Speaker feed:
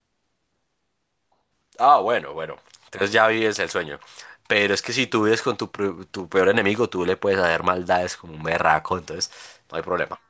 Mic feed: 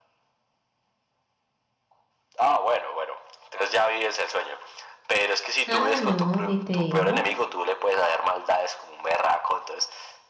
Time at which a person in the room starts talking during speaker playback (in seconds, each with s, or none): 5.7 s